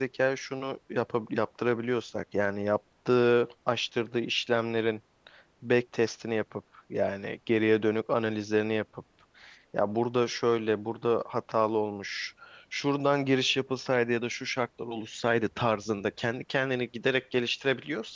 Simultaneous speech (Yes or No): No